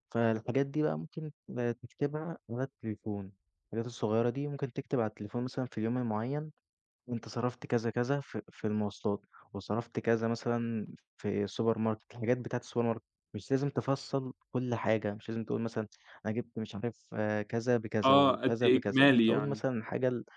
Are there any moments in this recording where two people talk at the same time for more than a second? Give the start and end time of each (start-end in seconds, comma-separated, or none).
18.0-19.6